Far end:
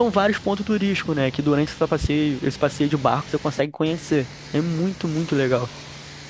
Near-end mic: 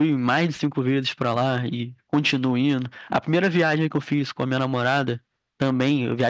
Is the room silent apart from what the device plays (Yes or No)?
No